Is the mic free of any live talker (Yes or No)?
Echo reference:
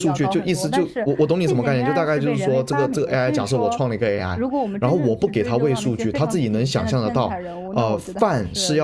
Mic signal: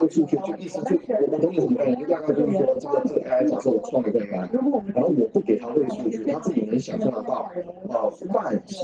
Yes